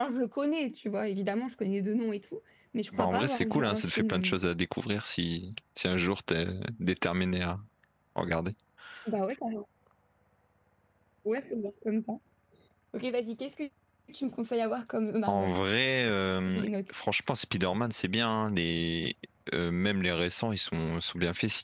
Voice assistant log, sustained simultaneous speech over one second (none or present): present